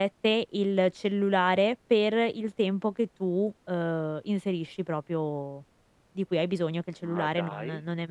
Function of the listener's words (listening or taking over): listening